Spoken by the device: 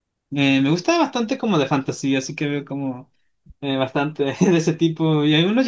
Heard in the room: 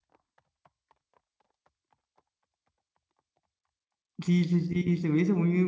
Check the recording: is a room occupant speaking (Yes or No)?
Yes